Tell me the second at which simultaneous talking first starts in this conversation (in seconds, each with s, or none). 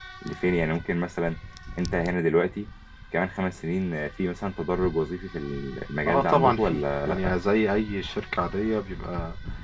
6.1 s